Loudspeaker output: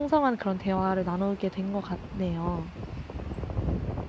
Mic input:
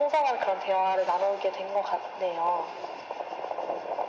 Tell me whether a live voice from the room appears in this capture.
No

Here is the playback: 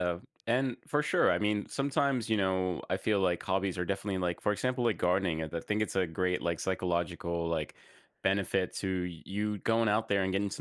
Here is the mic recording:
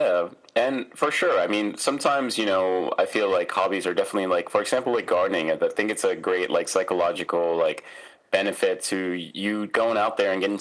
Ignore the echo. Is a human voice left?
No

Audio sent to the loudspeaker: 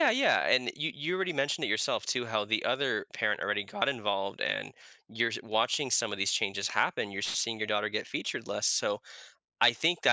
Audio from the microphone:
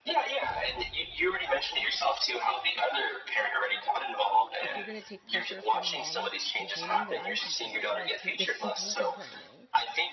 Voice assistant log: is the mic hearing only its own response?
No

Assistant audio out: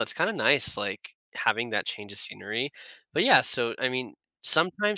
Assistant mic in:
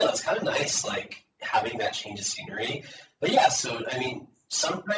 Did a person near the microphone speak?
No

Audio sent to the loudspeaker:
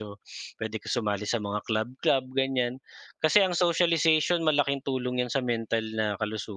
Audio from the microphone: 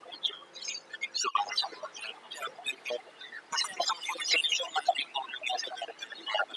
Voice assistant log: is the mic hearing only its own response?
Yes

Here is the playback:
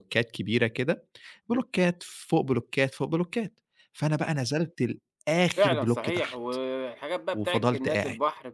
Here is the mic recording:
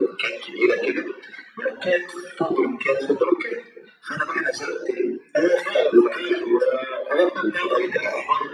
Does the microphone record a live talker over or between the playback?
No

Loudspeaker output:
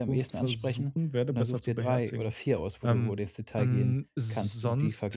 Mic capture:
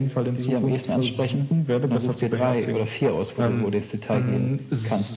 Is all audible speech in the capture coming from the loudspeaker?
Yes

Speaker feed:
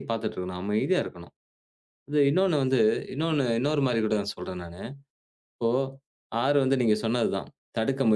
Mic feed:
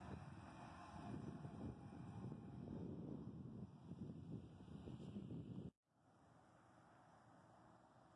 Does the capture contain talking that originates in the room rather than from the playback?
No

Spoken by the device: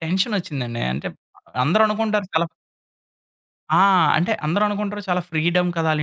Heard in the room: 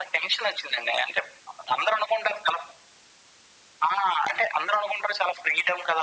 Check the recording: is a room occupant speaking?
No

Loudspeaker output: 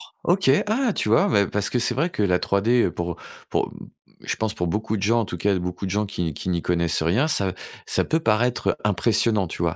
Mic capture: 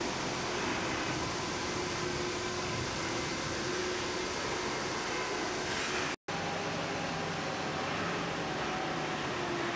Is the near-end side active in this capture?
No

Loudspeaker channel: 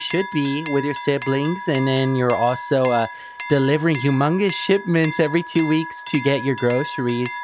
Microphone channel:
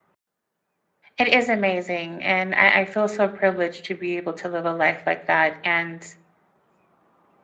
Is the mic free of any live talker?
No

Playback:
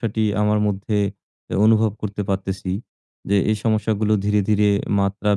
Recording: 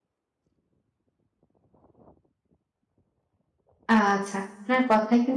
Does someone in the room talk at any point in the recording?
Yes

